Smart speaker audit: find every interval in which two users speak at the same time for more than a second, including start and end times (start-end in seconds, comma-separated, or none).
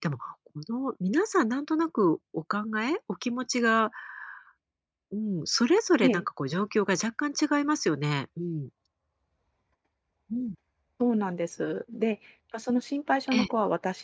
none